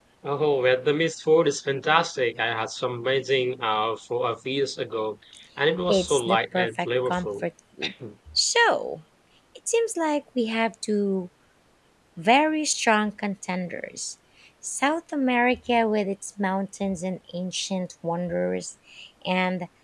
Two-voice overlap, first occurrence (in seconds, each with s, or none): 5.9 s